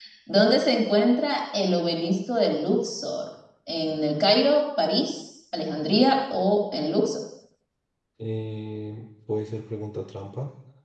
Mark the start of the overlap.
none

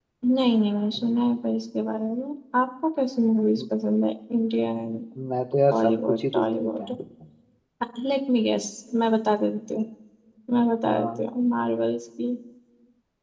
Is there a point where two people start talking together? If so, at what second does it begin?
5.7 s

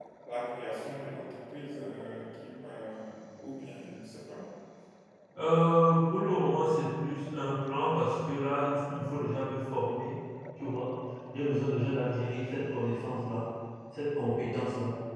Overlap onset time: none

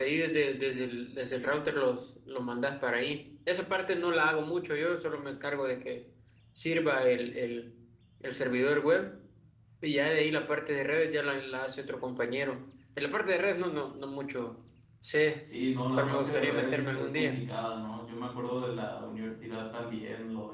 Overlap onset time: 16.0 s

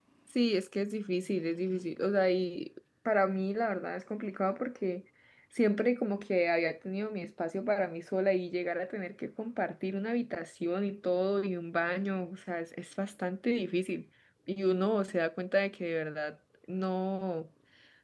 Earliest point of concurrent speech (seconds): none

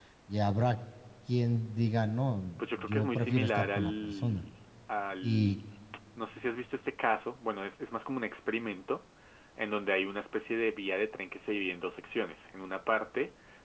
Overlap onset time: 2.8 s

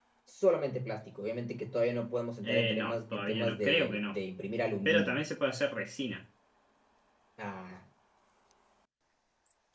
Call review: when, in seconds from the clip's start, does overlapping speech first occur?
2.4 s

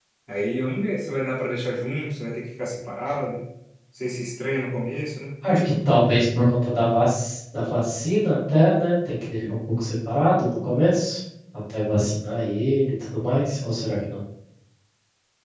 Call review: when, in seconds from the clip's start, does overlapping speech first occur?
none

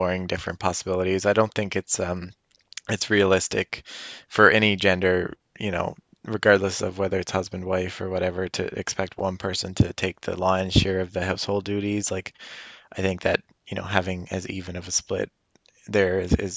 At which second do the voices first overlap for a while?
none

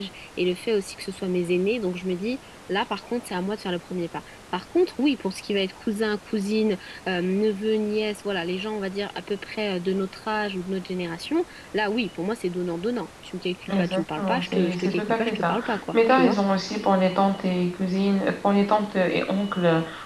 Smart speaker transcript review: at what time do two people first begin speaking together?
13.7 s

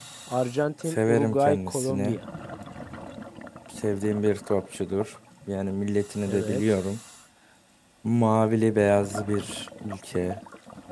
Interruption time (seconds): 0.8 s

